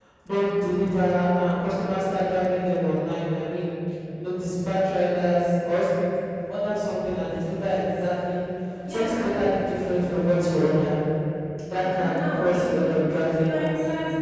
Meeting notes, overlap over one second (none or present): present